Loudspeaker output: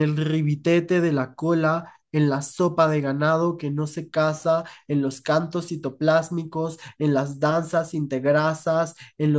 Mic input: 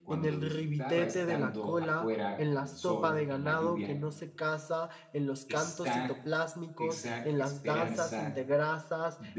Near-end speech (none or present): present